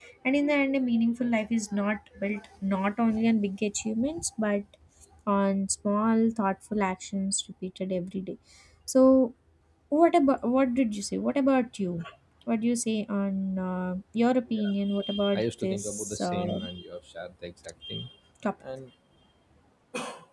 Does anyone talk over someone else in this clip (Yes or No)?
Yes